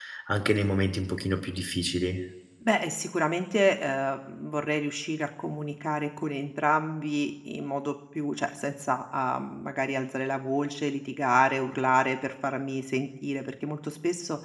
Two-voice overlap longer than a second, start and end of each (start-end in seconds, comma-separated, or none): none